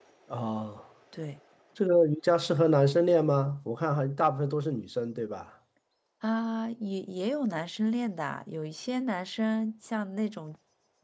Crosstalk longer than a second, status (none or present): none